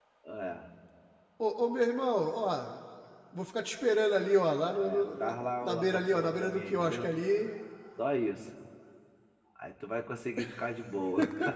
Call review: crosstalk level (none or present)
present